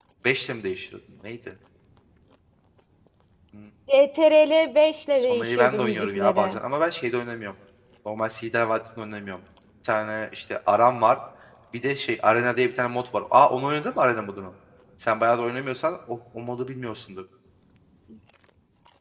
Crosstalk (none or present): present